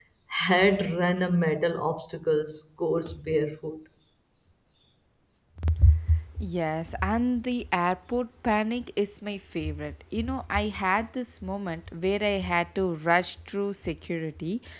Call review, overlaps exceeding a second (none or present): none